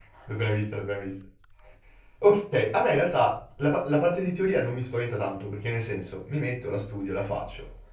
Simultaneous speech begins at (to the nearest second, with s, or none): none